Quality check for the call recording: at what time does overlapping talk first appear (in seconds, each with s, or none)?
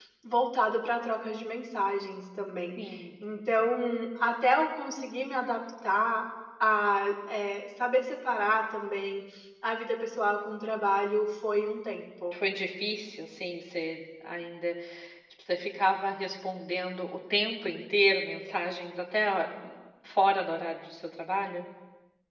none